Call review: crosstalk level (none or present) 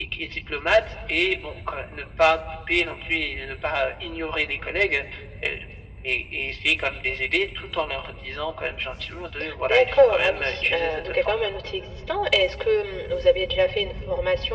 present